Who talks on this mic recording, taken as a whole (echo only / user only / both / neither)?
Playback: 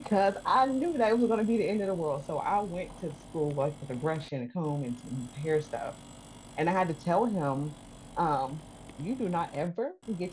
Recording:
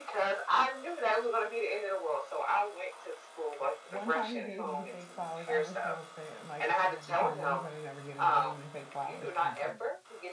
both